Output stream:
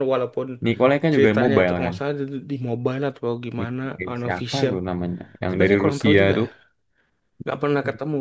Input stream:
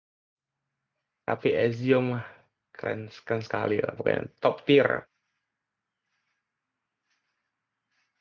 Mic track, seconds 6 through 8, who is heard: neither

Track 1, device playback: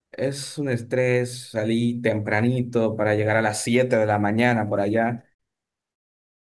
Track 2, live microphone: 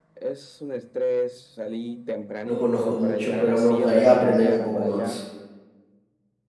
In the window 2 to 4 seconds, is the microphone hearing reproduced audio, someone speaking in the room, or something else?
both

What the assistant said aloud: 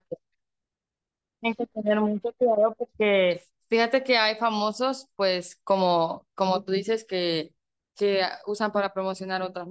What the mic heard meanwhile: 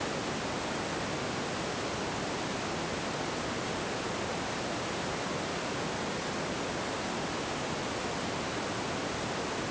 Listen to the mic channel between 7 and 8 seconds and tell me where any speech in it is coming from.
neither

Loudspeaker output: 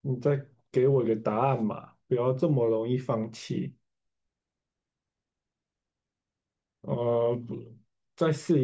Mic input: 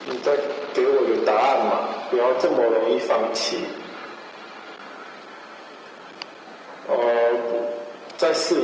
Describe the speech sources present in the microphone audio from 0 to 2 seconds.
echo only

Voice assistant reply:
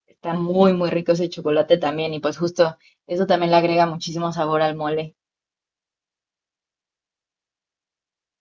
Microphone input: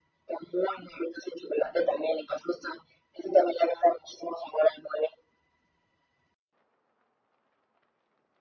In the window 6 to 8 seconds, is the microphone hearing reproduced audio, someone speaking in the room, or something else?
neither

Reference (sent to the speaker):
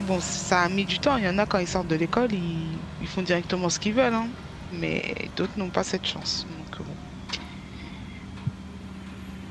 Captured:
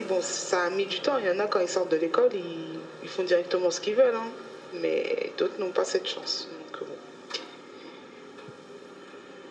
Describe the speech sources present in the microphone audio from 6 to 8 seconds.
echo only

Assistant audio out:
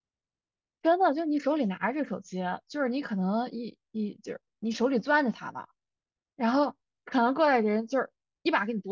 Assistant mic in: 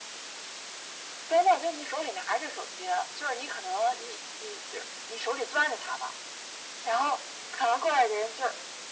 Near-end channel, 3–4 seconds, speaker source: echo only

